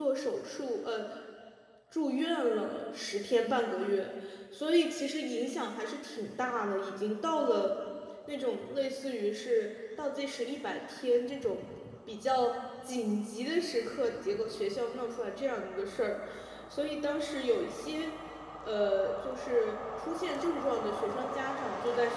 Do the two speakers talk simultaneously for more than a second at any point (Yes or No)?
No